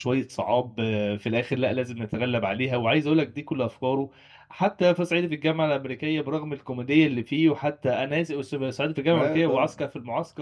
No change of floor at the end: Yes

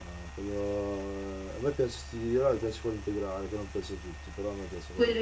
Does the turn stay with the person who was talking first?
No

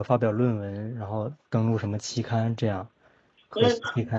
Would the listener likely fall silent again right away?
No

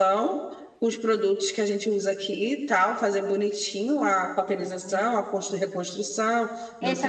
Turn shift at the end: Yes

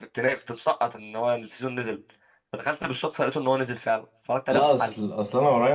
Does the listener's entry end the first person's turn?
Yes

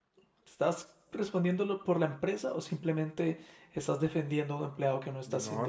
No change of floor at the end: No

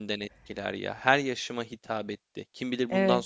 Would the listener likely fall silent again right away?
Yes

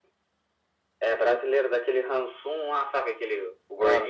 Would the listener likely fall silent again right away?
No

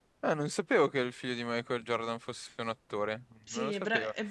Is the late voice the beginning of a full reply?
Yes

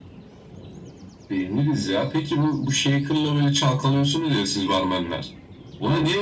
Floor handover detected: No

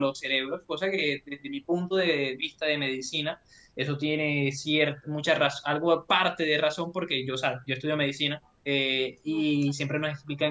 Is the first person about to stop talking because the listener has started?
No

